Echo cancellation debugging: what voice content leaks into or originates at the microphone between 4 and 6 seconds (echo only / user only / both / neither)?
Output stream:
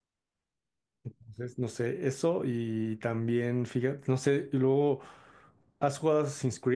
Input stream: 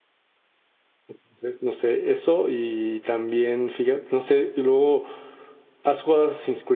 echo only